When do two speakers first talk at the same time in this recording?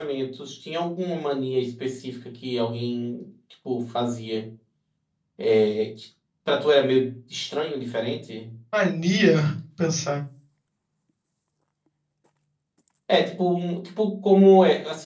none

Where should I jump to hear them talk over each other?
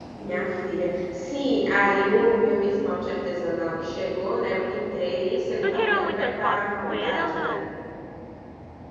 5.6 s

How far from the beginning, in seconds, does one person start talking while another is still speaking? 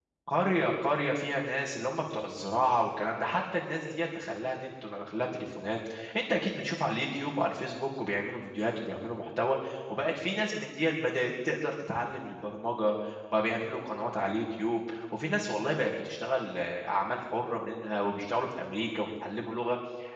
none

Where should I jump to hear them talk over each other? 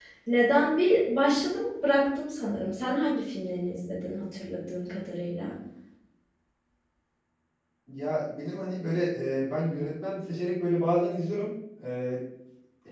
none

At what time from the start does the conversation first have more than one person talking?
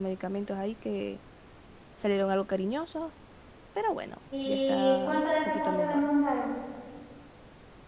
4.5 s

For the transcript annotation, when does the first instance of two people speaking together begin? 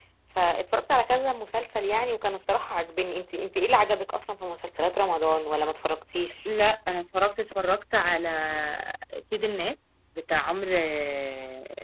none

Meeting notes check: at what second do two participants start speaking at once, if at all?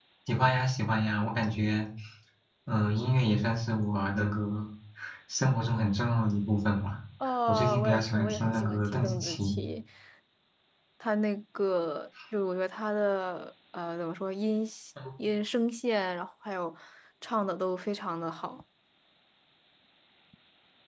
7.5 s

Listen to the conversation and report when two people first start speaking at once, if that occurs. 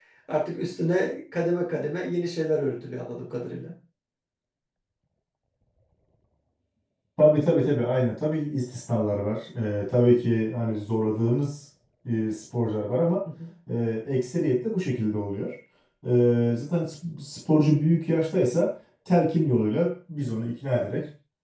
none

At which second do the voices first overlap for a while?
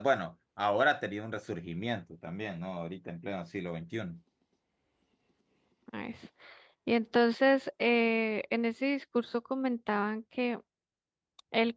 none

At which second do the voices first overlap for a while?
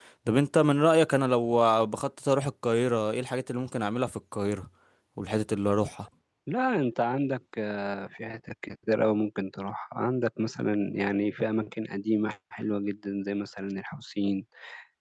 none

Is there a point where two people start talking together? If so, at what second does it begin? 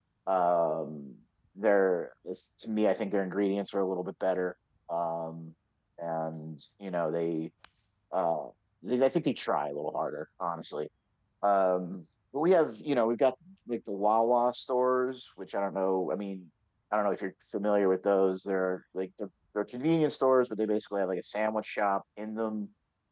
none

